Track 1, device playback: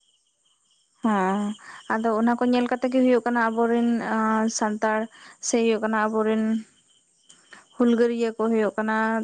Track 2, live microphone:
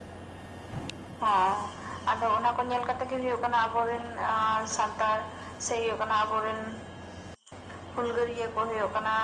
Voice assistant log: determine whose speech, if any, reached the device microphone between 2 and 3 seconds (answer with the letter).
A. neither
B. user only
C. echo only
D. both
C